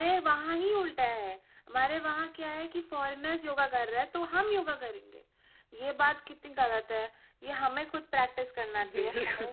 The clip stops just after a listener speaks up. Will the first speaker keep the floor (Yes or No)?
Yes